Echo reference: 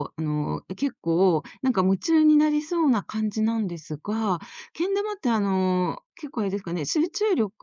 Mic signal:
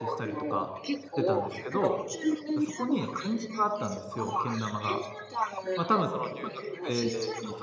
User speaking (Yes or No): Yes